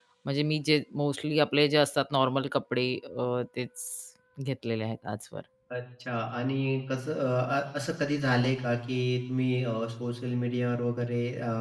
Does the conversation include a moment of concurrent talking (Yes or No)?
No